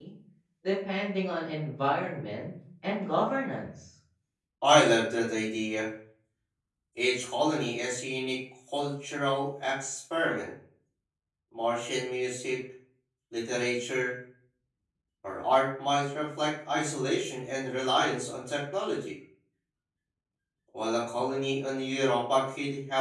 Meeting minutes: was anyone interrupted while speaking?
No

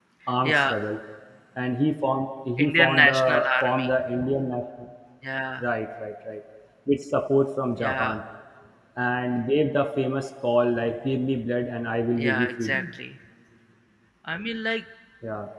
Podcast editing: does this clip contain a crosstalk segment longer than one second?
Yes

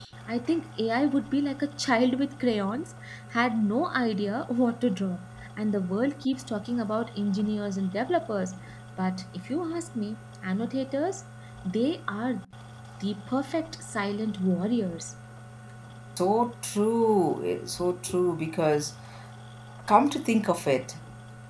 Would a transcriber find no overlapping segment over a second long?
Yes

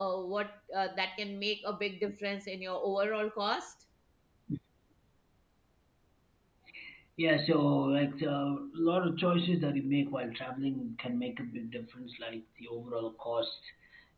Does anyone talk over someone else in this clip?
No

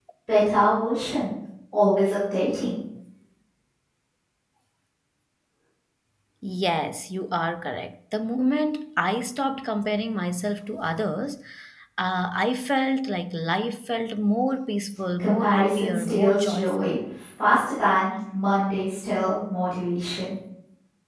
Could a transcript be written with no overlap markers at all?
No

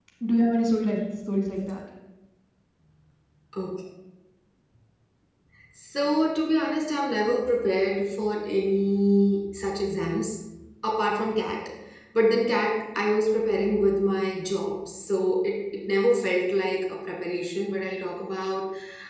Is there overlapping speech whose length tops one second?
No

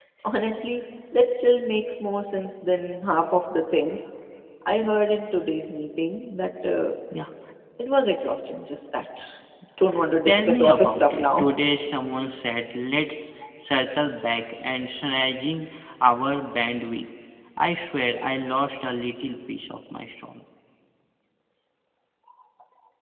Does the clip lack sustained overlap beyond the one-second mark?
No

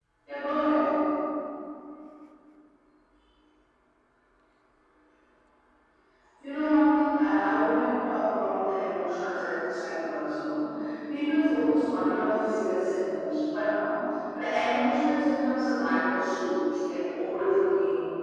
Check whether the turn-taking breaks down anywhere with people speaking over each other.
No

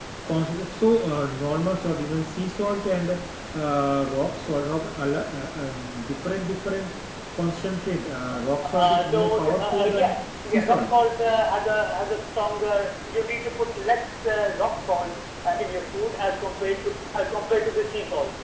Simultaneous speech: Yes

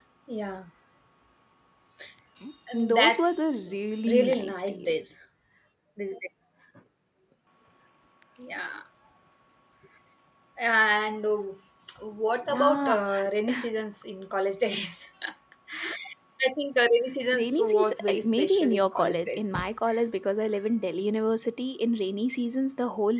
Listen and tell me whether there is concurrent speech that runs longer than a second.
Yes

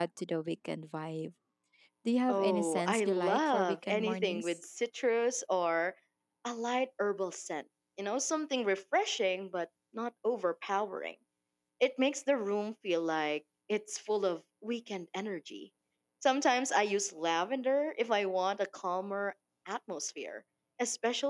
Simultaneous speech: Yes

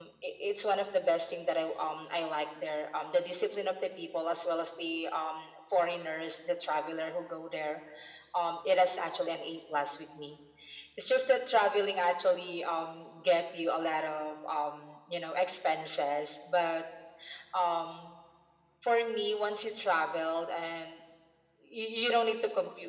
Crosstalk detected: No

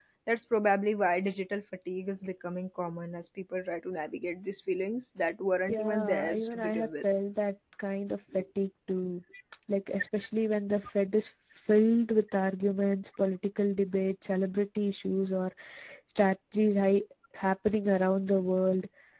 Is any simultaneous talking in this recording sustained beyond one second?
Yes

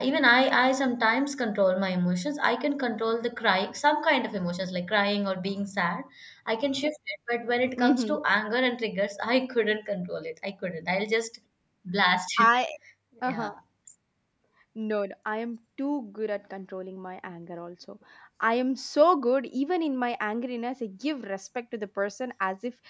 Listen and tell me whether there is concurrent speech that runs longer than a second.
No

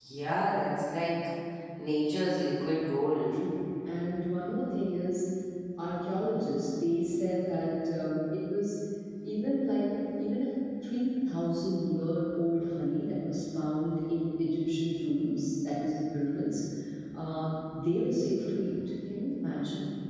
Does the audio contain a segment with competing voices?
No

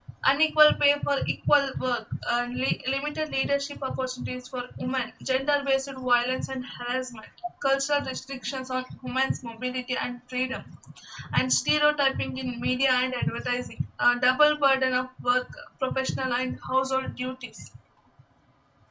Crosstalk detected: No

